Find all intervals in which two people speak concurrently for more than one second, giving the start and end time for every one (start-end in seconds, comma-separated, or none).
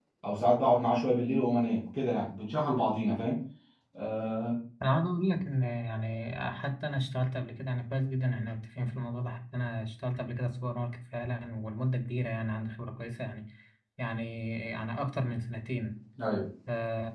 none